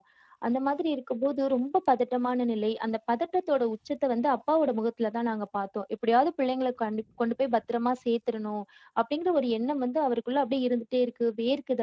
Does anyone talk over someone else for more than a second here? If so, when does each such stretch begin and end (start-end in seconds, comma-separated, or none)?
none